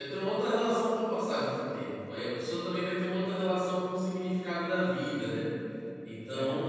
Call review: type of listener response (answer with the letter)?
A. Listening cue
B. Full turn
A